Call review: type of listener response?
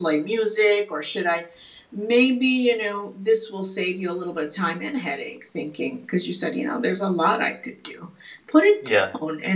listening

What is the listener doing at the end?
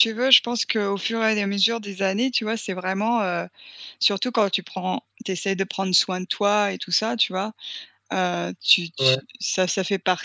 listening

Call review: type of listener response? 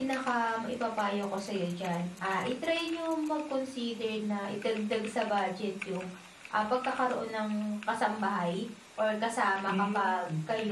listening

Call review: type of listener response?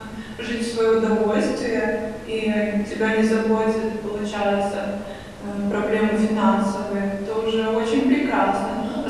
listening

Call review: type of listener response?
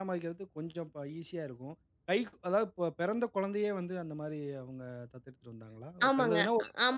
taking over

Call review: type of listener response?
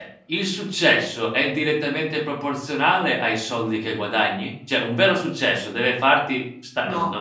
listening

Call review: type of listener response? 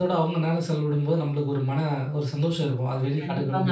taking over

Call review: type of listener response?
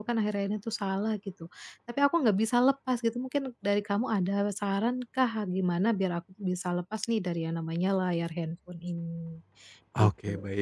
taking over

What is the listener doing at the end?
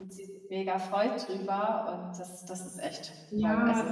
taking over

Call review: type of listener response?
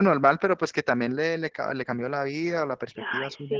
taking over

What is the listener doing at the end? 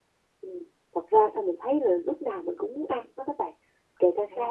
listening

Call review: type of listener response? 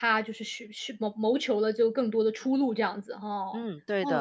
taking over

